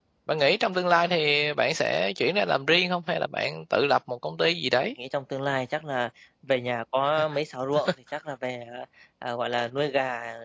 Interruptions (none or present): none